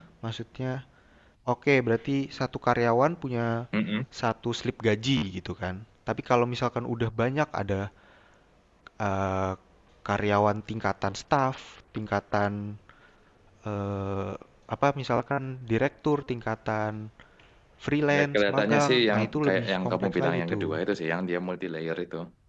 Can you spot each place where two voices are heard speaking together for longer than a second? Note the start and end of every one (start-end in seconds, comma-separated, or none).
18.1-20.7